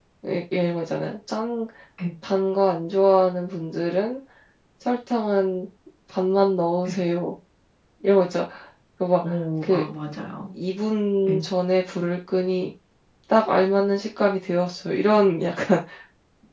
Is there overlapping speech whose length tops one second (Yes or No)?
No